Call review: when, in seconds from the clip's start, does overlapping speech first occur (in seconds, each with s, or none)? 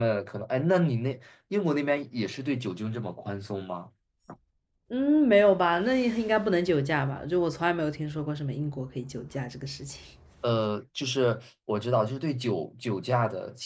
none